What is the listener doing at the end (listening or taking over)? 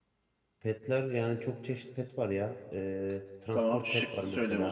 taking over